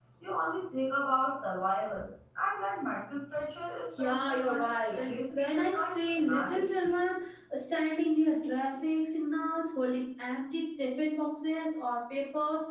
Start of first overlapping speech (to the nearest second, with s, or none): 4 s